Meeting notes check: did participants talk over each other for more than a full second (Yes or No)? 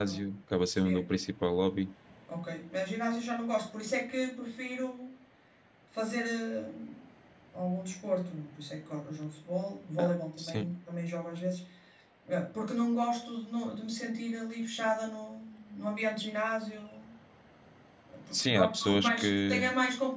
Yes